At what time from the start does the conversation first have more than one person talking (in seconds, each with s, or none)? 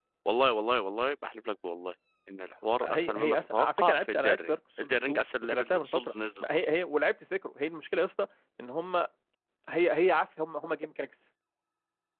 2.8 s